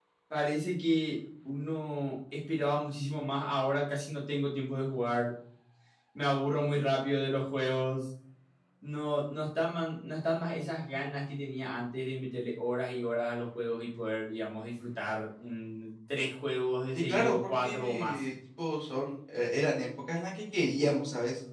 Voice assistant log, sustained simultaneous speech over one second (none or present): present